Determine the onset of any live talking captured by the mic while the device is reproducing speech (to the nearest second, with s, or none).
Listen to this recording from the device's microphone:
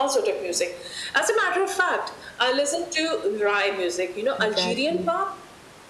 4 s